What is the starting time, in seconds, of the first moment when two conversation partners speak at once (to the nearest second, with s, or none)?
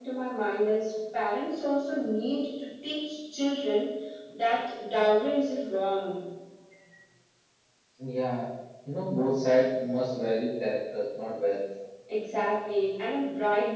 none